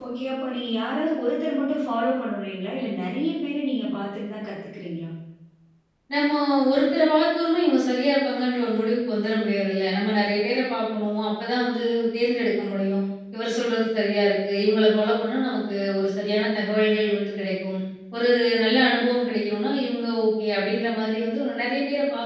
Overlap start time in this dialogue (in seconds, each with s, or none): none